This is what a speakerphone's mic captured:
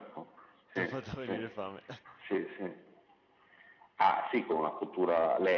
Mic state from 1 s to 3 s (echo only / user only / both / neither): both